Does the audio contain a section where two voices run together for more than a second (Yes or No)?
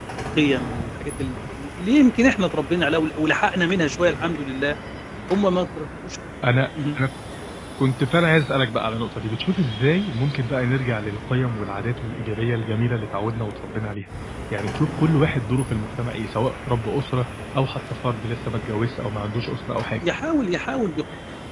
No